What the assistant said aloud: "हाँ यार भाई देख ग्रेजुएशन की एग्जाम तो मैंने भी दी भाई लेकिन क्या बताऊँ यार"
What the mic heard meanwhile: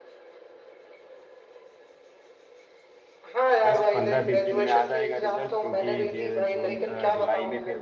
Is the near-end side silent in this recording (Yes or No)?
No